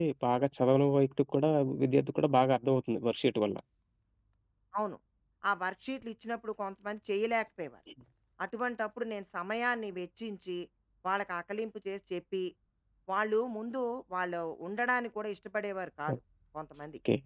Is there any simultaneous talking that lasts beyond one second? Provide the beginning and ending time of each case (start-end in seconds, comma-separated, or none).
none